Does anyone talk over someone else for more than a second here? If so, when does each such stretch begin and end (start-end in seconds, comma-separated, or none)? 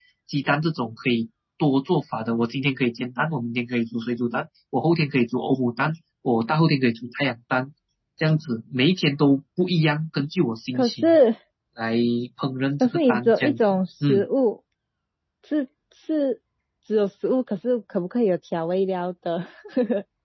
12.8-14.3